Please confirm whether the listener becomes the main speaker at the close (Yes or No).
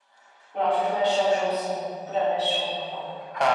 Yes